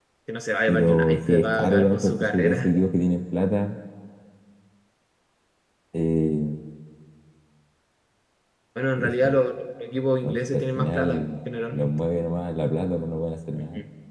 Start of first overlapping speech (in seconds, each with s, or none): 0.7 s